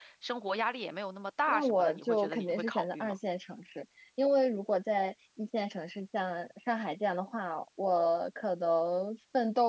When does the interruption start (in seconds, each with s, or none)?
1.5 s